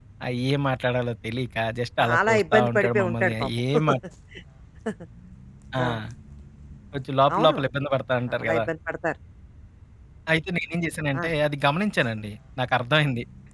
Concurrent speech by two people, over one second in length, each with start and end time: 2.0-3.3

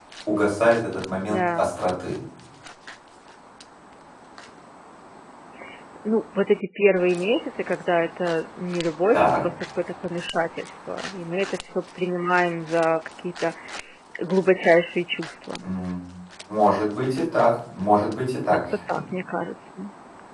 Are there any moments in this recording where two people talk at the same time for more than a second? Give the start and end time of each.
none

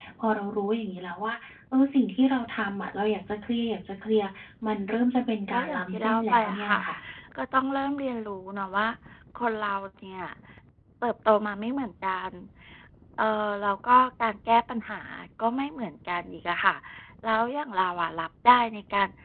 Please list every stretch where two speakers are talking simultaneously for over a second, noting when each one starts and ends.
5.5-6.8

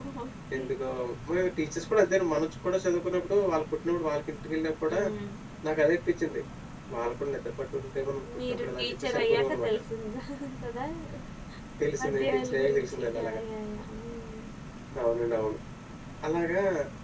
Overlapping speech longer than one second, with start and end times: 8.5-9.8, 12.0-13.4

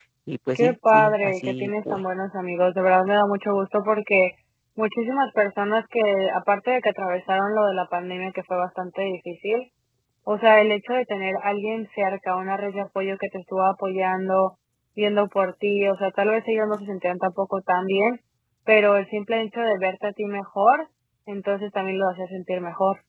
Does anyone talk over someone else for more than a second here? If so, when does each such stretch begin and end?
0.6-2.0

